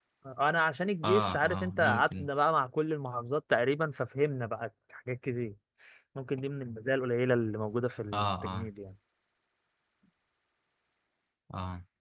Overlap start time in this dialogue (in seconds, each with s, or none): 1.0 s